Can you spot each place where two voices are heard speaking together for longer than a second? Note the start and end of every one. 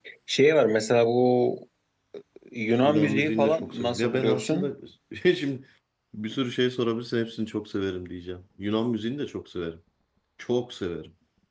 2.8-4.7

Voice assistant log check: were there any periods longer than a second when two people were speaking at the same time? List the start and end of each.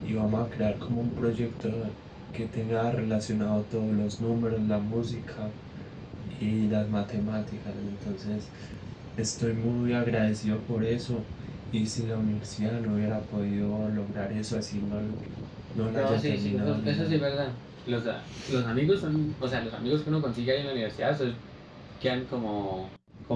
15.9-17.2

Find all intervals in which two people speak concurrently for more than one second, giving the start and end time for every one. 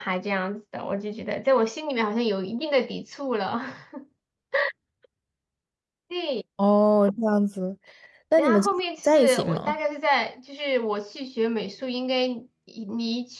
8.4-9.8

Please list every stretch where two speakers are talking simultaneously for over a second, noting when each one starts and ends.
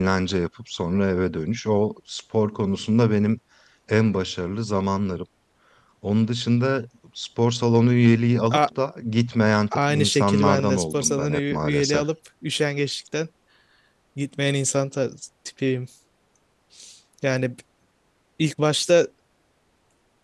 9.9-12.0

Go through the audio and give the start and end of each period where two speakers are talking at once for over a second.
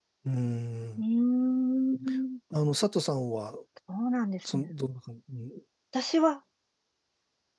none

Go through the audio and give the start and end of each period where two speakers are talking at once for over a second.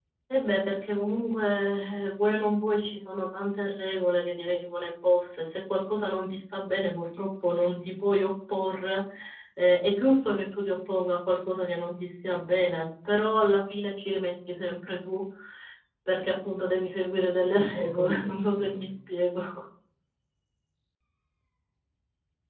17.0-18.9

